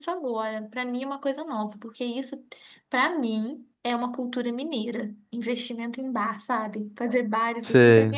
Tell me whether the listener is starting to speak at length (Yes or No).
No